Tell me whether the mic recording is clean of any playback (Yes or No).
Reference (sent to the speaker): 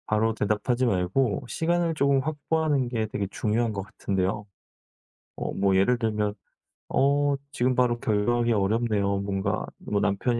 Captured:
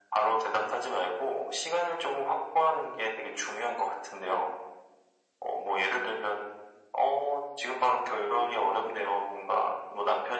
No